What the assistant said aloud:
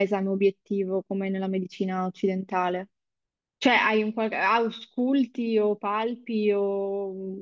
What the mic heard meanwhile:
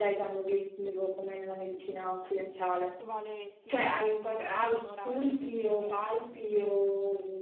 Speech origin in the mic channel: both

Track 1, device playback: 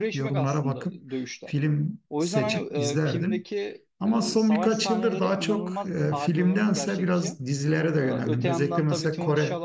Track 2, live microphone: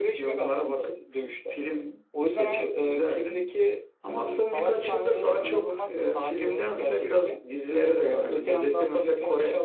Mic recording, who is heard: echo only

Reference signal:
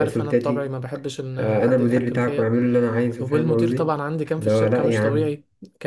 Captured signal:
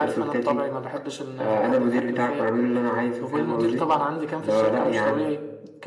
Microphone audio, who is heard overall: echo only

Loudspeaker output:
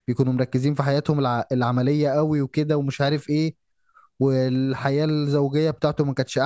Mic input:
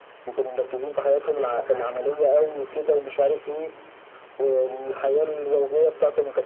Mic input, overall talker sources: both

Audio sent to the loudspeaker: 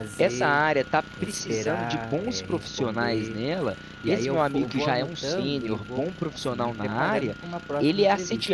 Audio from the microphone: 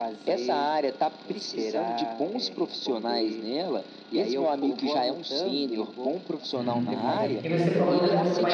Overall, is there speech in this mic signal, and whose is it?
both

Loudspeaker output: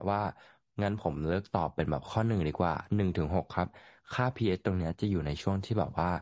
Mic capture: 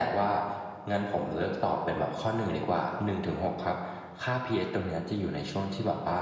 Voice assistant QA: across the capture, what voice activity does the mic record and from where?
echo only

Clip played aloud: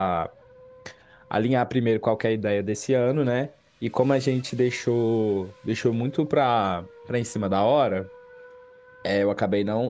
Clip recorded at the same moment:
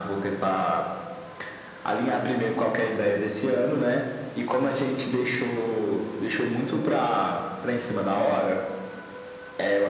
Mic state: echo only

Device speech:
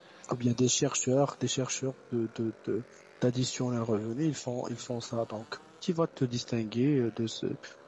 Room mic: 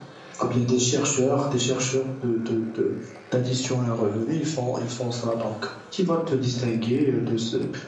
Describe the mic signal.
echo only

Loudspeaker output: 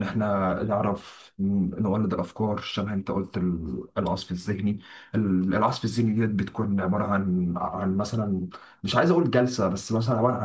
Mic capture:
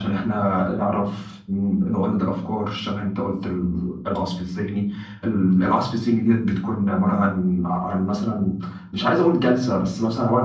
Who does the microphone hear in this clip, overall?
echo only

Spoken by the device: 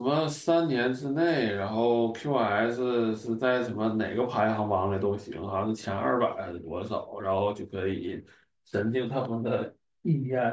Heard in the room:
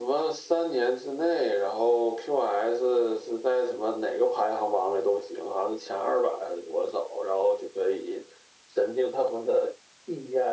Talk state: echo only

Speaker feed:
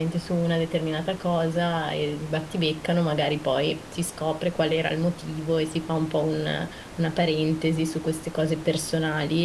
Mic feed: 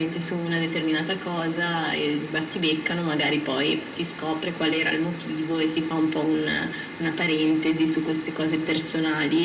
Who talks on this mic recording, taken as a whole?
echo only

